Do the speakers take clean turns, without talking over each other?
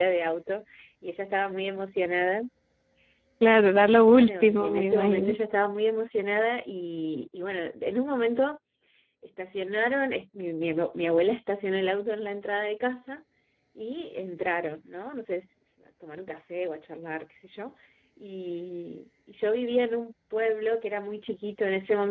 No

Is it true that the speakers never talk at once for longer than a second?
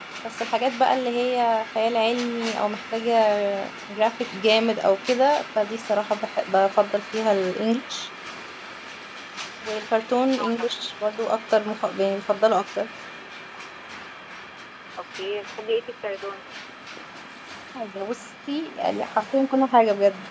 Yes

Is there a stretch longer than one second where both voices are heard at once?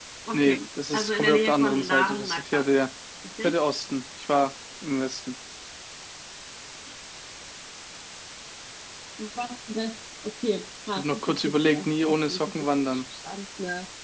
Yes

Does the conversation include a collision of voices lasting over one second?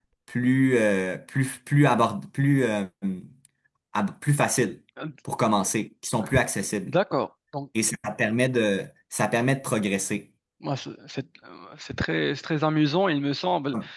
No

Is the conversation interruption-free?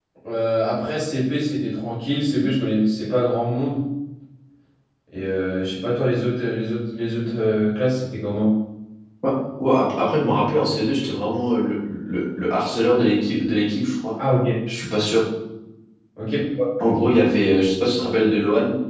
Yes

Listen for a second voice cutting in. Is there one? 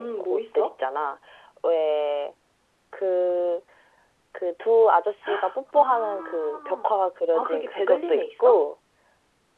Yes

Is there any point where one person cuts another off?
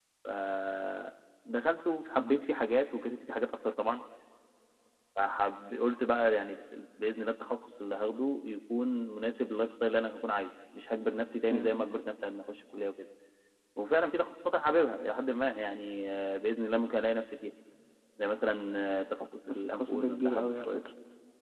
Yes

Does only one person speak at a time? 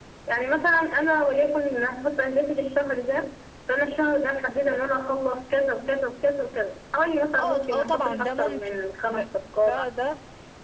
No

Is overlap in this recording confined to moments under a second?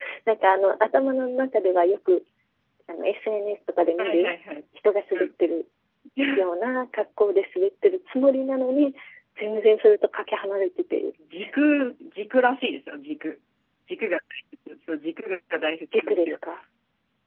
Yes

